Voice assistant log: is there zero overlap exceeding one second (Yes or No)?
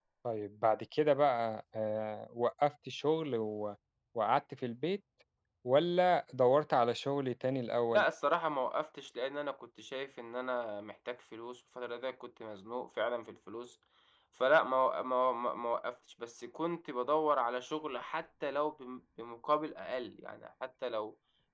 Yes